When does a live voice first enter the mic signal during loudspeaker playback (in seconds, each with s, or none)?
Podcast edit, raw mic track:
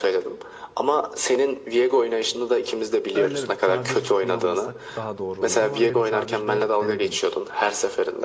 3.1 s